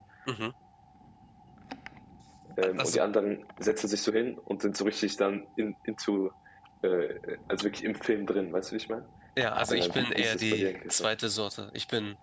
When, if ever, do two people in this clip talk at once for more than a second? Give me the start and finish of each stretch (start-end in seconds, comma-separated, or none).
9.7-11.1